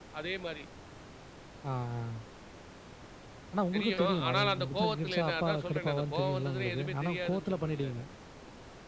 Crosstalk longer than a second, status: present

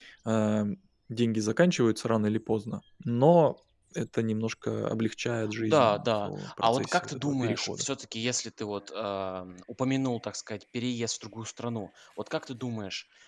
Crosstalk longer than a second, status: present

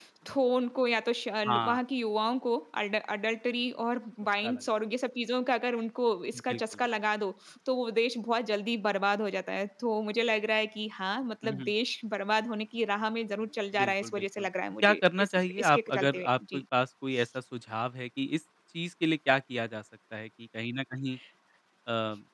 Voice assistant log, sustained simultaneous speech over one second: present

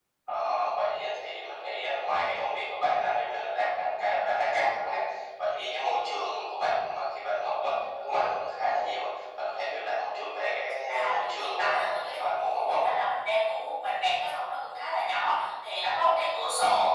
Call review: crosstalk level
present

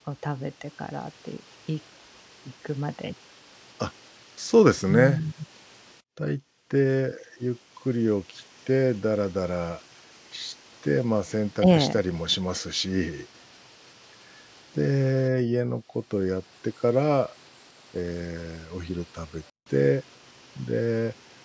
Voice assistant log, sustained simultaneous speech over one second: none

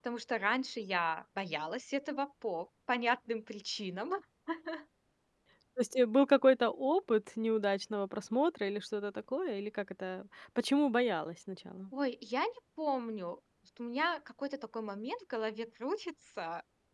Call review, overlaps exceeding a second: none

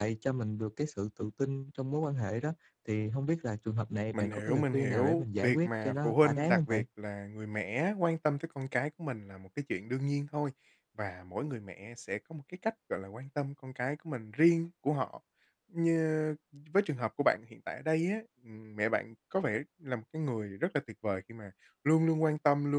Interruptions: present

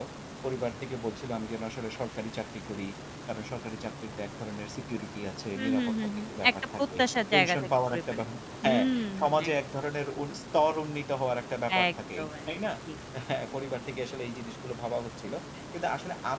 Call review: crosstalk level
present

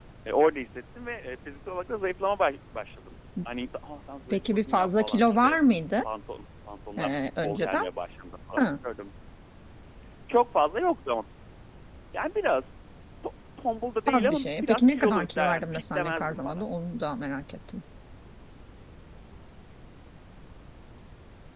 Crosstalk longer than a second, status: present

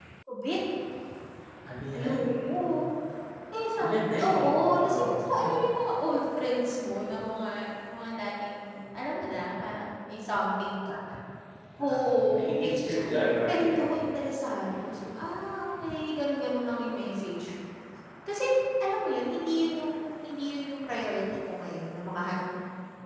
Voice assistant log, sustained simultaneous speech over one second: present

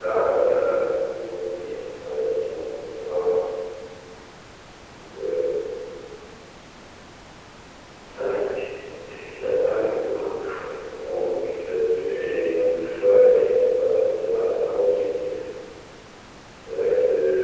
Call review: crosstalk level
present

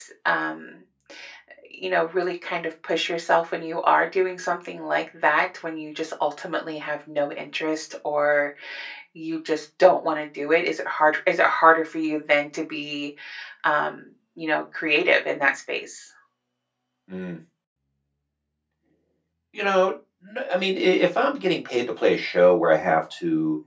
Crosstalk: none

